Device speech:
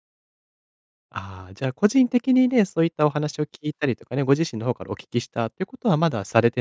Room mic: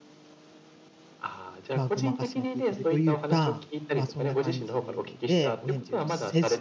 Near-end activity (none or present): present